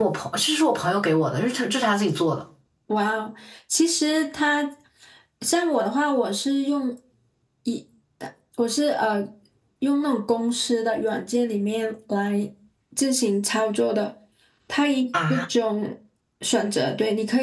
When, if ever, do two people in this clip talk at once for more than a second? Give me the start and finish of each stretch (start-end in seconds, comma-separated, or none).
none